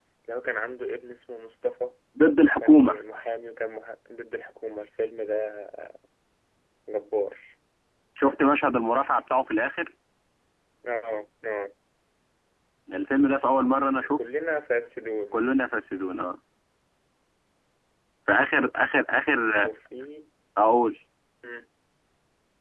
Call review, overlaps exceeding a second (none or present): none